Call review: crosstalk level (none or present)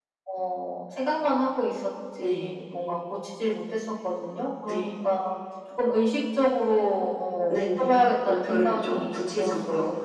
present